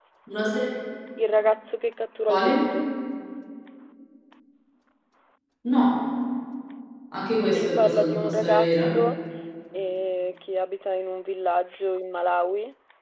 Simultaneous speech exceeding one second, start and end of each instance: 7.4-8.9

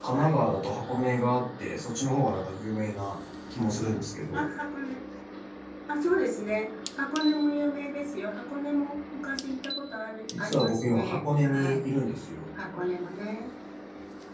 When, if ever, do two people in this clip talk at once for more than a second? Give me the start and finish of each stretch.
10.4-11.8

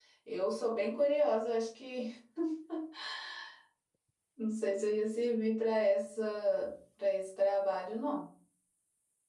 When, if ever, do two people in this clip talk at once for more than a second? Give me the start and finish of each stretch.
none

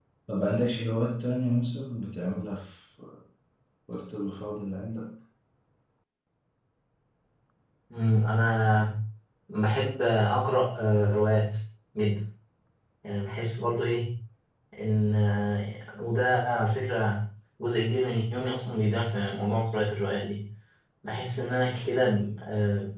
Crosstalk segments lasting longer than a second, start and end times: none

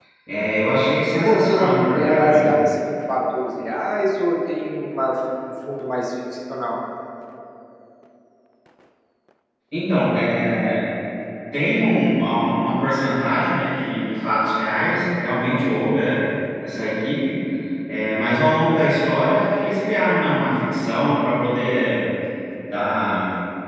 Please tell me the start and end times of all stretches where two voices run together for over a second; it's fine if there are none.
1.2-2.5

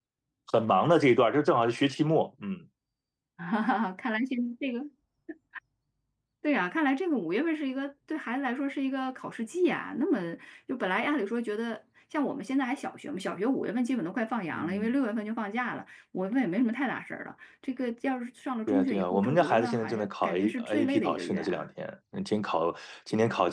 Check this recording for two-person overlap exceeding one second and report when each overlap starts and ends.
18.7-21.6

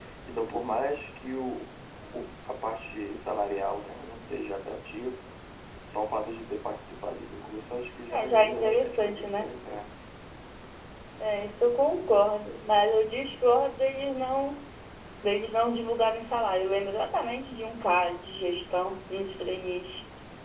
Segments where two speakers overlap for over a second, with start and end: 8.1-9.4

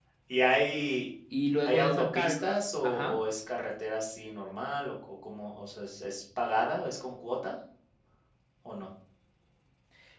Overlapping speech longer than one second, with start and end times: 1.7-3.2

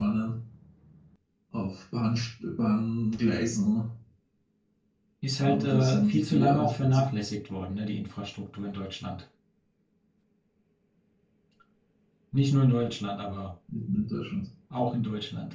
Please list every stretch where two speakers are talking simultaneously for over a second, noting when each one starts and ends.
5.4-7.1

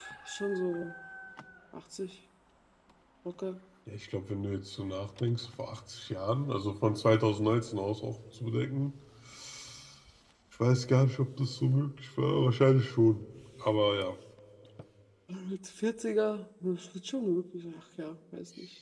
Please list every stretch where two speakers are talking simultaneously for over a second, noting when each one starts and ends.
none

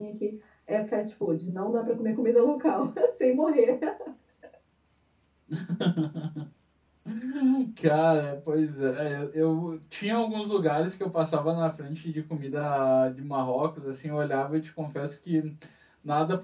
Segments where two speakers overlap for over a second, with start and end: none

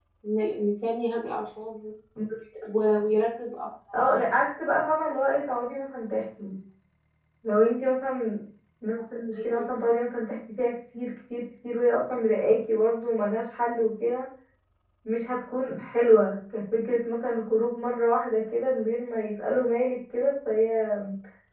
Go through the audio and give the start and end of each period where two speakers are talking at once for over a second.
none

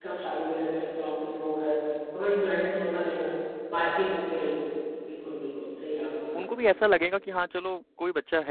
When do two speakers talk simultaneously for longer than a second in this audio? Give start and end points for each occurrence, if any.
none

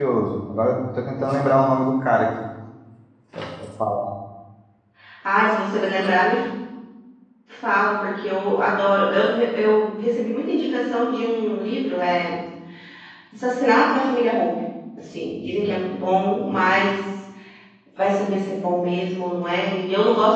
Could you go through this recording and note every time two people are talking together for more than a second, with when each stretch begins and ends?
none

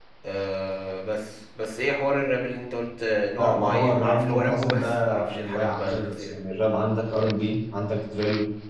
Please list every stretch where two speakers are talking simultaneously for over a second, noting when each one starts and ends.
3.4-6.3

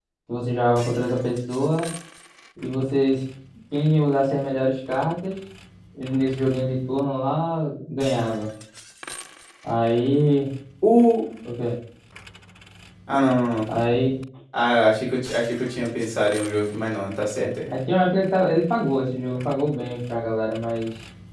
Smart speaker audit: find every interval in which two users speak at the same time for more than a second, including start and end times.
none

